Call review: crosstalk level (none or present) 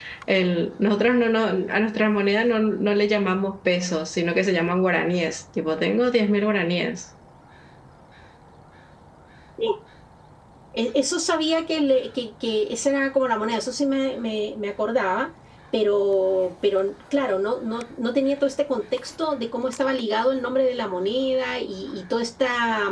none